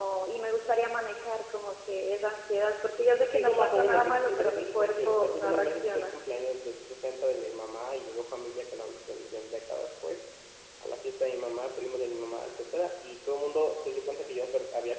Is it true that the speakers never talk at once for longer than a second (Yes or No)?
No